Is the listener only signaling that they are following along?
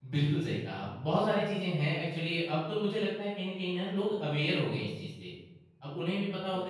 Yes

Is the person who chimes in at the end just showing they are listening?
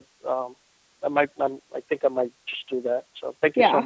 No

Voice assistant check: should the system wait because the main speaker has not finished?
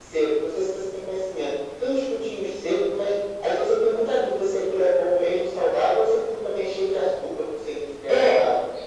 No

